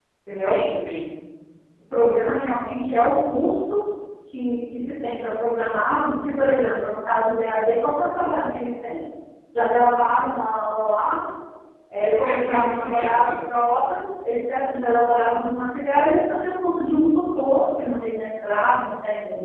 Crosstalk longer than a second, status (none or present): present